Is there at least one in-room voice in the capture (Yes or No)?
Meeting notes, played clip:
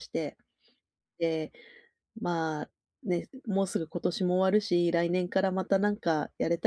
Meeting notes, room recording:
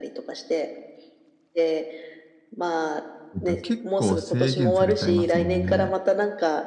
Yes